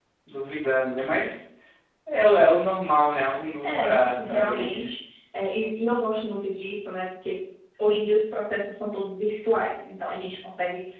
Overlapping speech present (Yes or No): Yes